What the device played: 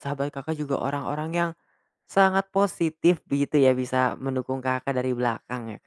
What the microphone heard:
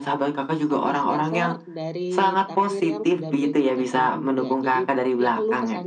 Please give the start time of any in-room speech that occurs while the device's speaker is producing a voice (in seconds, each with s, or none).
0.7 s